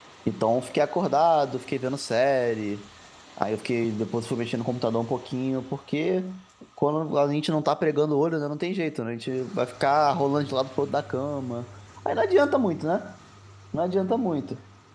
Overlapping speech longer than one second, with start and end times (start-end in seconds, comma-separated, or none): none